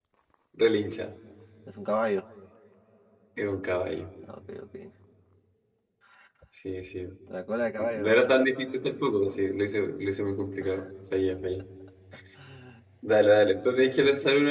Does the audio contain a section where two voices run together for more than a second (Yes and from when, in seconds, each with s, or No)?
No